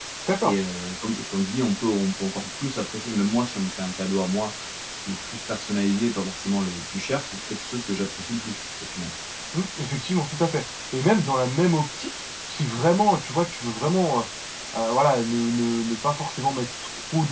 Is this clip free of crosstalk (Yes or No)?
Yes